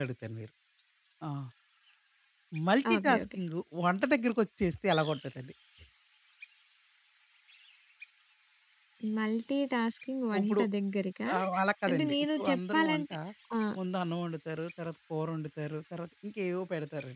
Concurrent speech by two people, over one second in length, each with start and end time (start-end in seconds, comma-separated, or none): 11.9-13.1